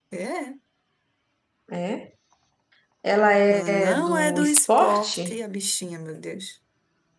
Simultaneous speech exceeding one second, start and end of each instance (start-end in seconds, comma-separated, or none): 3.5-5.4